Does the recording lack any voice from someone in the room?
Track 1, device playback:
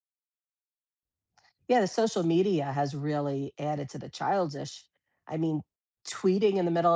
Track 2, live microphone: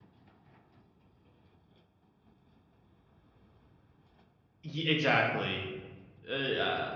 No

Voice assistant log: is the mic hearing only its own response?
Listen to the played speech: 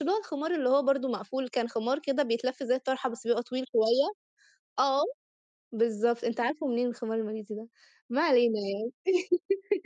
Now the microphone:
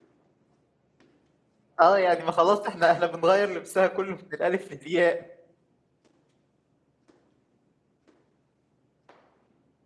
No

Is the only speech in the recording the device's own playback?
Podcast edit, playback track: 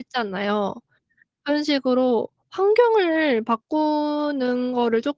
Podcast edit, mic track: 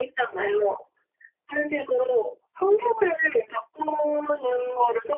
Yes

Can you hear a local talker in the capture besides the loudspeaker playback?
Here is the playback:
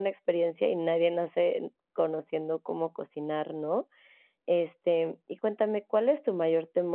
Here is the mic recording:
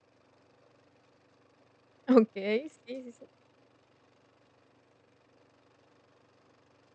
Yes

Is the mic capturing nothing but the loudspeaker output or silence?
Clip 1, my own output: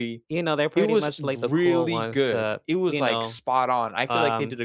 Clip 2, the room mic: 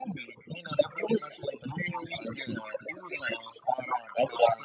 Yes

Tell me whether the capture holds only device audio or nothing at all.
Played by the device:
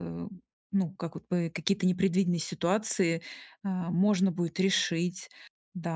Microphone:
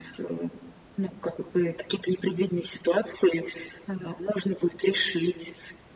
Yes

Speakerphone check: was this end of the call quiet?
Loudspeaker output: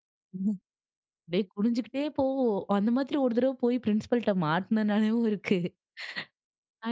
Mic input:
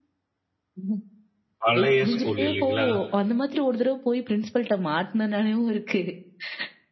No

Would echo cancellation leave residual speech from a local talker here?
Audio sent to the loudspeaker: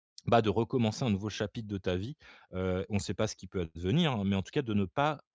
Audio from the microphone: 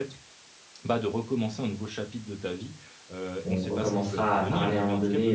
Yes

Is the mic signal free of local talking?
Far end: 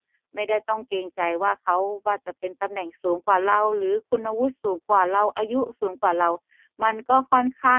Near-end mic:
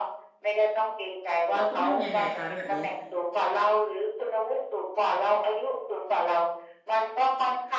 No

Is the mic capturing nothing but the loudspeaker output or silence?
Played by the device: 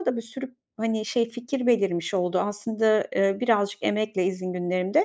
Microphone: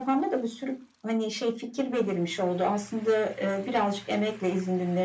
Yes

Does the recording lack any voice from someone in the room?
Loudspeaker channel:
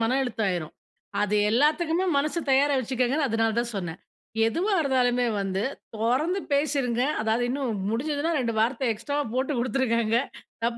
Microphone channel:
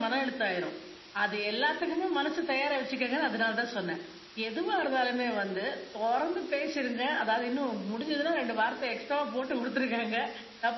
Yes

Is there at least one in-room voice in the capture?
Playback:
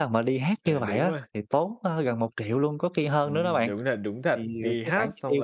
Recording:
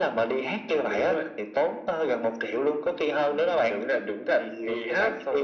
No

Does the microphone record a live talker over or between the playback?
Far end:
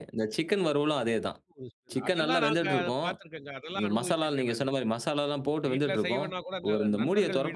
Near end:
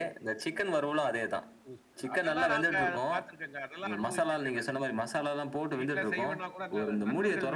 No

